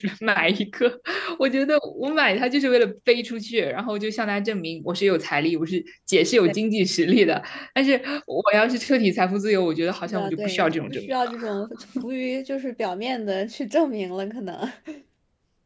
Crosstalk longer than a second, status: present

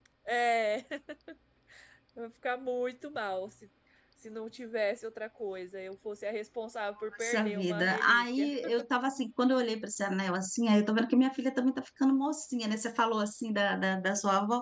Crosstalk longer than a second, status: present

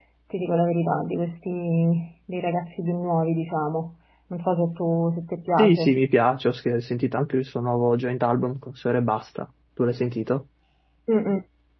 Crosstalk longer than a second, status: none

